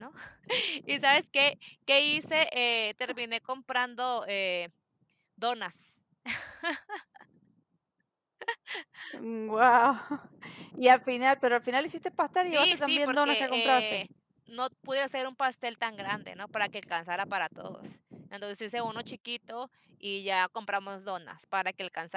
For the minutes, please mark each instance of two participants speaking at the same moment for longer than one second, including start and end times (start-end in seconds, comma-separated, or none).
12.4-14.0